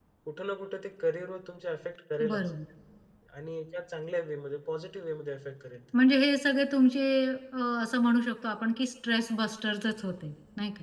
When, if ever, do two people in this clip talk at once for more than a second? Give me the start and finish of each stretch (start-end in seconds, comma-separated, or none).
none